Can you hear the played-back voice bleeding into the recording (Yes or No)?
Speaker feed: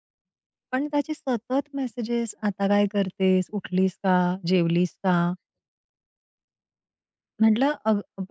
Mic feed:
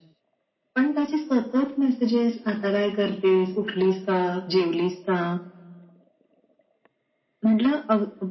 Yes